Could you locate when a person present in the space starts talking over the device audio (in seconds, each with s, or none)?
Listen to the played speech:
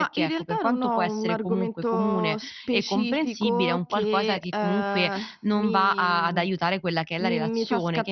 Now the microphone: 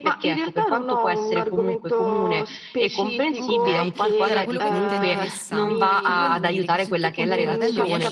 3.4 s